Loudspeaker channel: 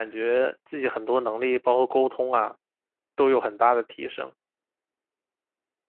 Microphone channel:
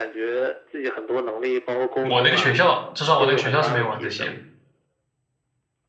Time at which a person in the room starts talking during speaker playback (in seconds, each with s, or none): 2.1 s